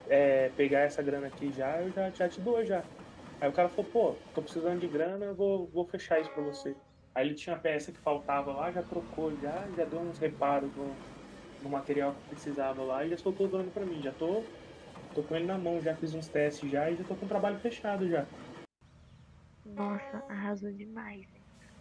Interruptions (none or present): none